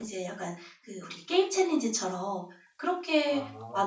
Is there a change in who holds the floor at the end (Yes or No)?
No